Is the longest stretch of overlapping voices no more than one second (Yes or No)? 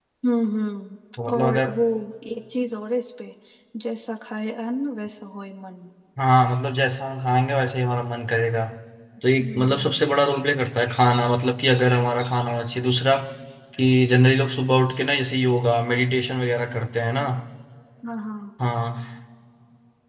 Yes